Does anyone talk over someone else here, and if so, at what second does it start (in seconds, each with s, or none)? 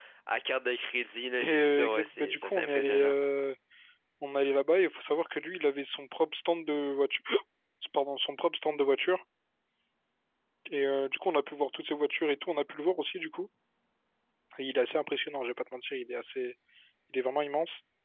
1.4 s